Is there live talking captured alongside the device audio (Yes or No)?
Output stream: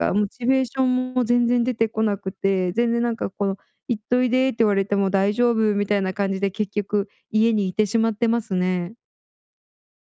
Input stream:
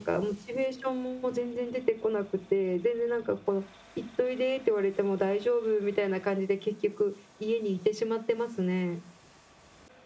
No